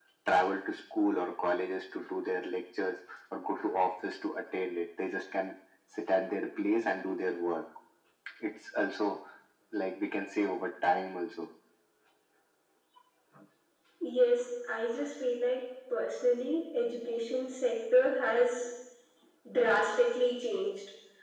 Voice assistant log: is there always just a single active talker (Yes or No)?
Yes